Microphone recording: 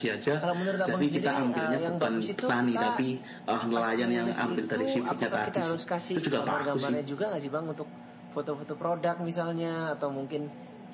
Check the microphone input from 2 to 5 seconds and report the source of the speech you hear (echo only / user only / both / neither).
echo only